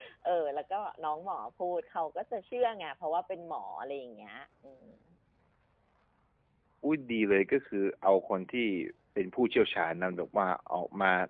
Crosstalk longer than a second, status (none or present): none